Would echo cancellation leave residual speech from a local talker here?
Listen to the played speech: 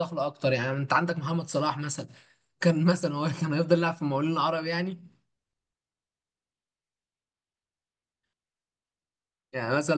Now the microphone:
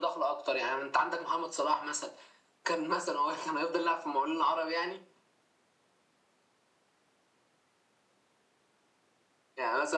No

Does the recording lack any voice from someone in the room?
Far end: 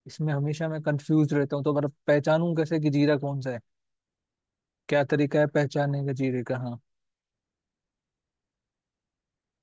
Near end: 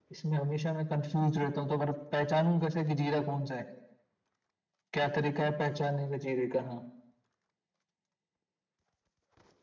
Yes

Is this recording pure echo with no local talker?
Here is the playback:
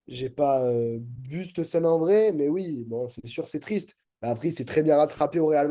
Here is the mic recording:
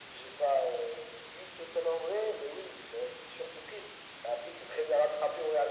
Yes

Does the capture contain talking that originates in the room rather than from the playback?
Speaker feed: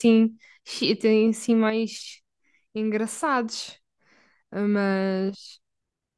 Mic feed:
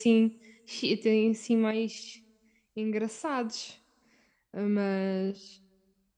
No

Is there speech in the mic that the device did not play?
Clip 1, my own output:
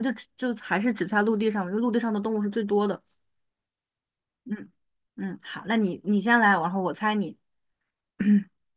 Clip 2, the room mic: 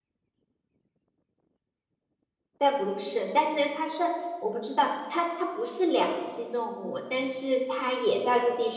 Yes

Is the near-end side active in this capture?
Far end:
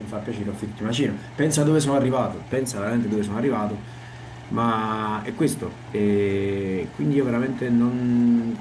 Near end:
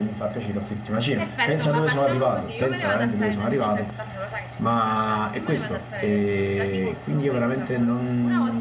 Yes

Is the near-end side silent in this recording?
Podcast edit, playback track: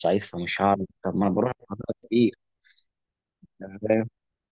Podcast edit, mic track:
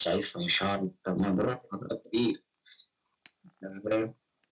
Yes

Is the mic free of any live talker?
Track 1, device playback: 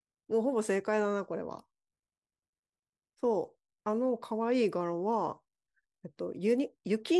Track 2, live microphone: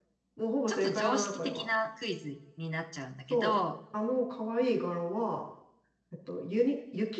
No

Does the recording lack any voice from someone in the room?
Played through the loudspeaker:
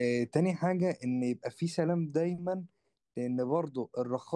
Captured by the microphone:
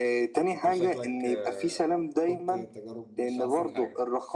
No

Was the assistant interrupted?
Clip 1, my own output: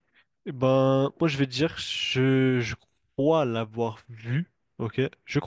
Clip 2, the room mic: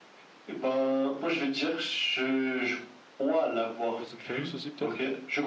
Yes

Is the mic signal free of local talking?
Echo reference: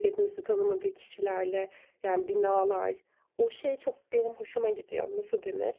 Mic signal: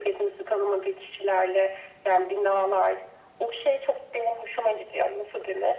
Yes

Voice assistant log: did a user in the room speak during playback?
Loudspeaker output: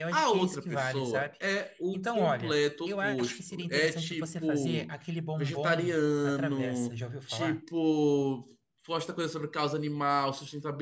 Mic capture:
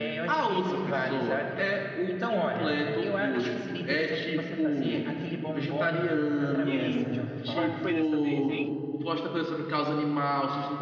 Yes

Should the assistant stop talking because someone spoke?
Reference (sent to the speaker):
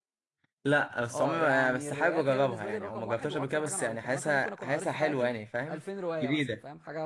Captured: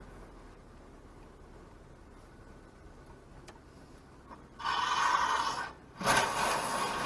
No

